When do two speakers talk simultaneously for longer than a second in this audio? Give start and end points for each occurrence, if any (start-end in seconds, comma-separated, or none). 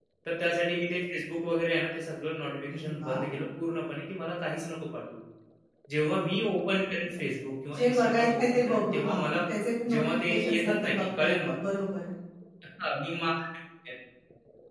7.8-9.4, 9.9-11.5